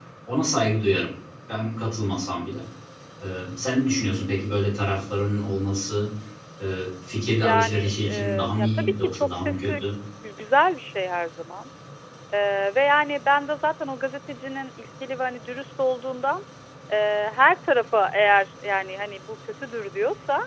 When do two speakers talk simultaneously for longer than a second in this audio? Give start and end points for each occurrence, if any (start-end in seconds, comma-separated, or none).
7.4-9.8